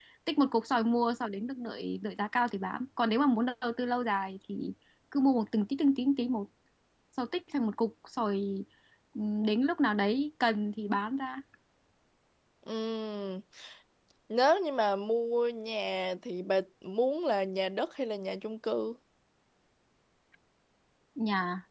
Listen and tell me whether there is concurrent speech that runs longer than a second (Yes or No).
No